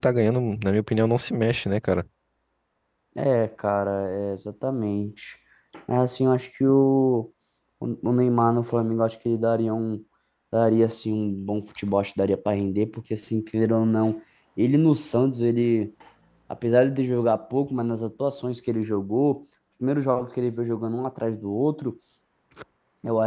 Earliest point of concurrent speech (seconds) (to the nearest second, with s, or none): none